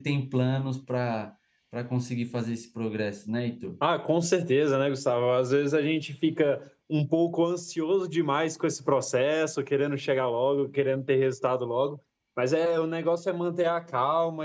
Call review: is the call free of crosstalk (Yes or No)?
Yes